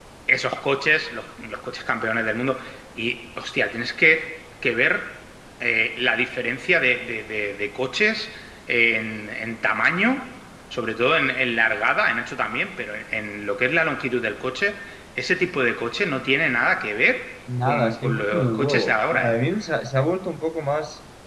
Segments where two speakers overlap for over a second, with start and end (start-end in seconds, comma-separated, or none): 17.6-19.3